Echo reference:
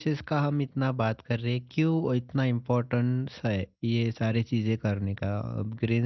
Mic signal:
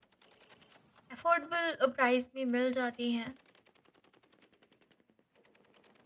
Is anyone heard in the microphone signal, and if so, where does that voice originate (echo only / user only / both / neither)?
user only